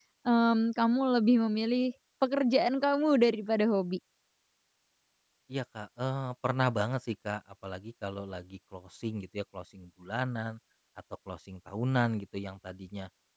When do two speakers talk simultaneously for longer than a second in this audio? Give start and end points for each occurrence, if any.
none

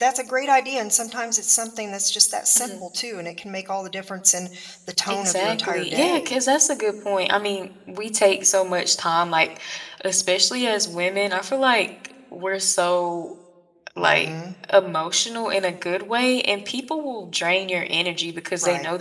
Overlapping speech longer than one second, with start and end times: 5.1-6.3

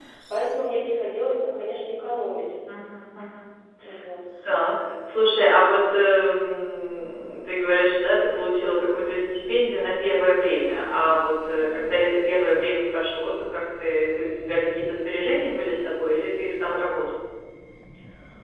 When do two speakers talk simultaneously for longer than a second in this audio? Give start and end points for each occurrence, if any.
none

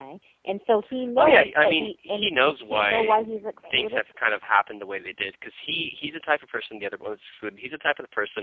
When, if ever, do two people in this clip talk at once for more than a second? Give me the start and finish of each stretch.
1.2-3.2

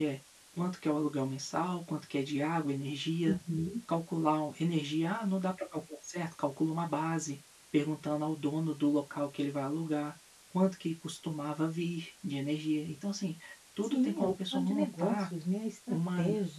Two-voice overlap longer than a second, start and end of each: 13.8-15.3

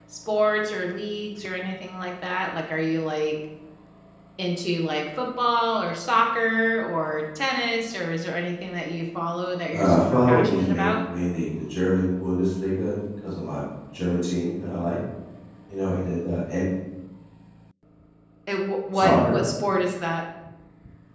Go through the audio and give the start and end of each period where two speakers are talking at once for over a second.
9.7-10.9

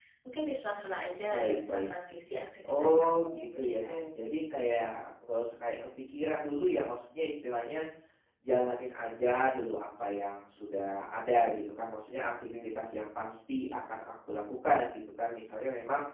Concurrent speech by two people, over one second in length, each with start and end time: 2.7-4.0

